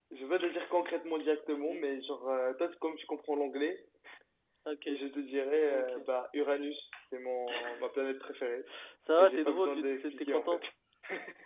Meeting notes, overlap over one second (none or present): present